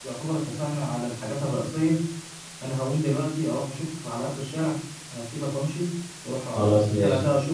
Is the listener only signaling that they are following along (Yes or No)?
Yes